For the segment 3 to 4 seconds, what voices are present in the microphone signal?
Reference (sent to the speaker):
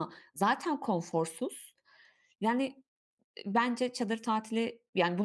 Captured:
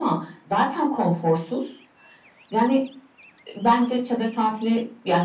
echo only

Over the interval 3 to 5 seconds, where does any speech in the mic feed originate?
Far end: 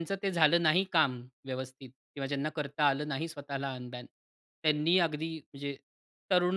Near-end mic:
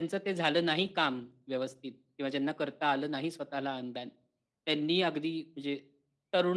echo only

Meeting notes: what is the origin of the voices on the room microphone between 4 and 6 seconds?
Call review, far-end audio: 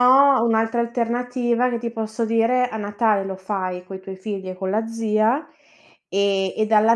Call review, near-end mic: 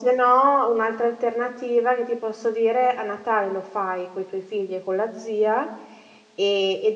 echo only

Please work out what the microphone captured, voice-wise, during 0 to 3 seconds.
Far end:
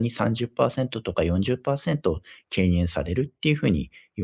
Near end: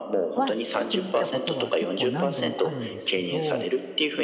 both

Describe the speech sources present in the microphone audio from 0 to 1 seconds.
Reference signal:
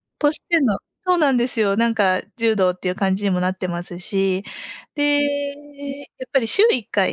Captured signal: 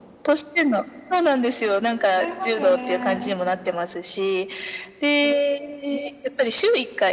echo only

